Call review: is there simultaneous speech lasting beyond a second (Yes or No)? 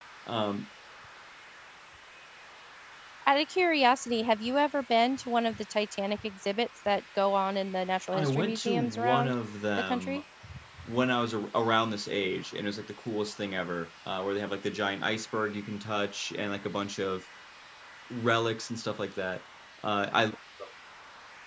Yes